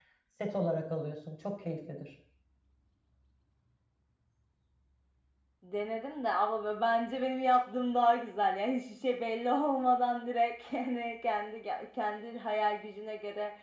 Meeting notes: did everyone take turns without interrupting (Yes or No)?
Yes